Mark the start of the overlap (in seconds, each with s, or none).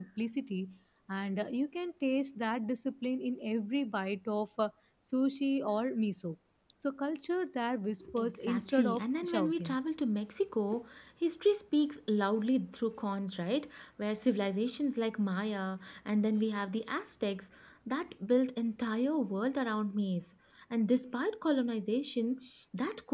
8.0 s